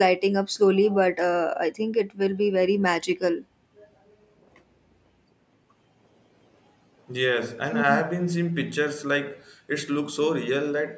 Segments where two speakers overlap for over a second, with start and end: none

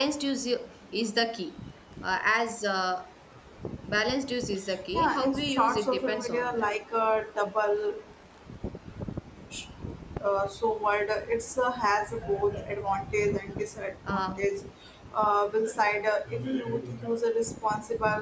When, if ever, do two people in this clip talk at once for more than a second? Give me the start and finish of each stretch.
4.9-6.7

